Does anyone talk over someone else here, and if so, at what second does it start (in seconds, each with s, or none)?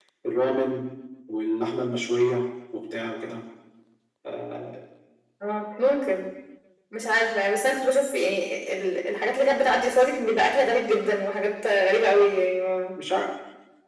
none